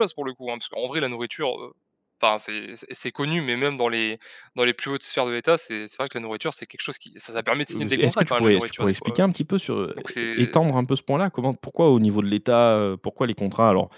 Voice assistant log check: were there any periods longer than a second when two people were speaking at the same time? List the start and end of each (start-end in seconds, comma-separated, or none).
7.7-9.2